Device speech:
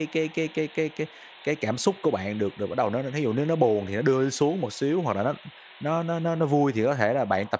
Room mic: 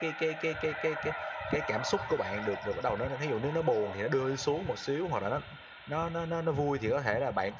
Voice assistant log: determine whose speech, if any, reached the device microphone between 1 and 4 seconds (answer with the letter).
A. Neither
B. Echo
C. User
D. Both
B